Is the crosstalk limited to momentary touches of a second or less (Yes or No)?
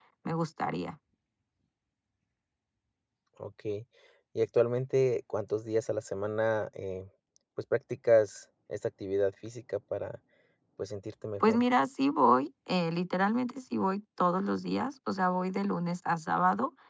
Yes